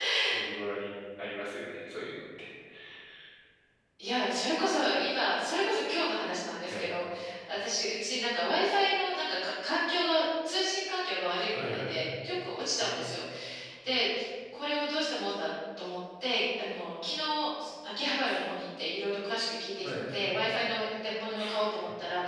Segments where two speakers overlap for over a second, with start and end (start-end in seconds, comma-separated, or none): none